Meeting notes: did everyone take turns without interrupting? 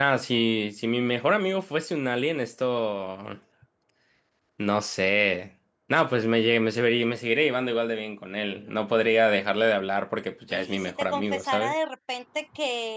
No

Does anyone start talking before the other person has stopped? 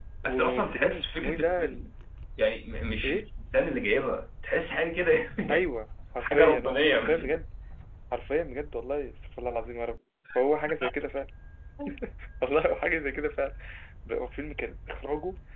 Yes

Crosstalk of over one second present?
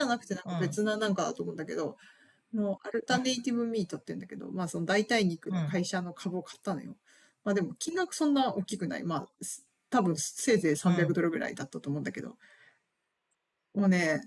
No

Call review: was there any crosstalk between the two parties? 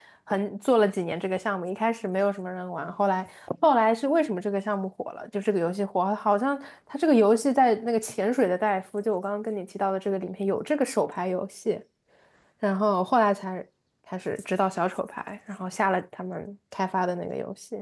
No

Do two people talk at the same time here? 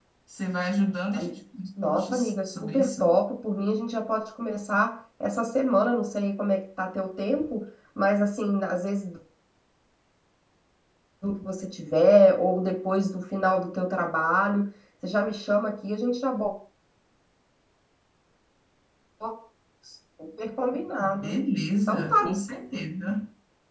Yes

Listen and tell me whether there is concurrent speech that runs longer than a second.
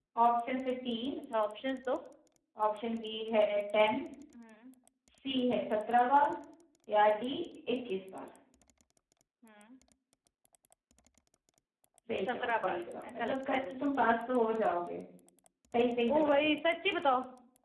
Yes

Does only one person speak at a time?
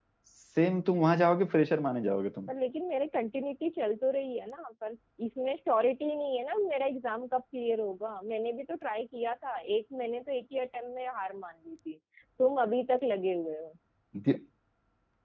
Yes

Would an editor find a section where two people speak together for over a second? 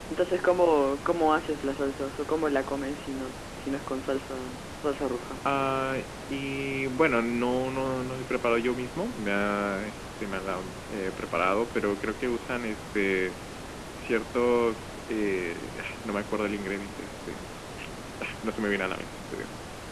No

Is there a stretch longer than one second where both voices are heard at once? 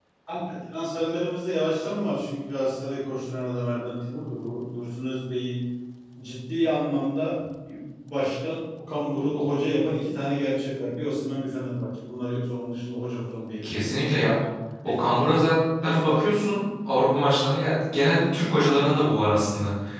No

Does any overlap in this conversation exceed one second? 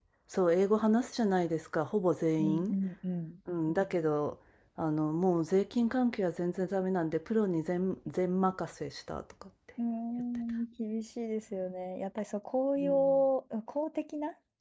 No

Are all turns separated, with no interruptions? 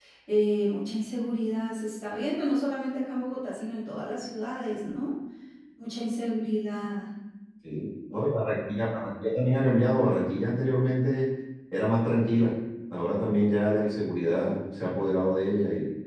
Yes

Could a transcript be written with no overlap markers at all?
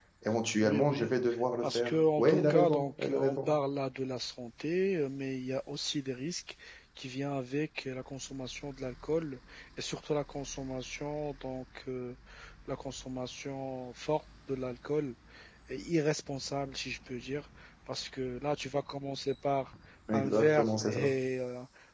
No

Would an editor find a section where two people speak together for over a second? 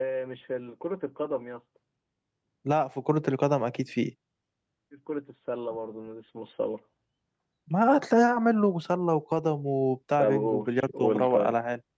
Yes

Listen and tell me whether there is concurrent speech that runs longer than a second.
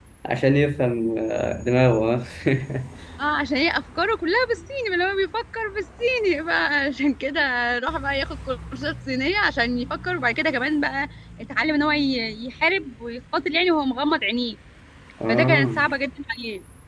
No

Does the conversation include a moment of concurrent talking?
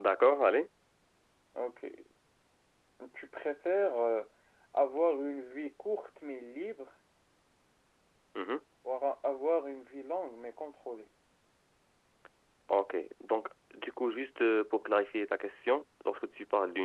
No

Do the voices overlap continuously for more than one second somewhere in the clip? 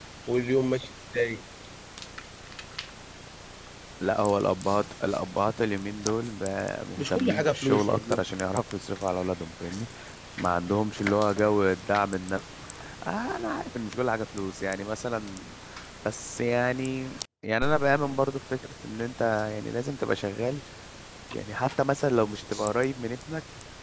Yes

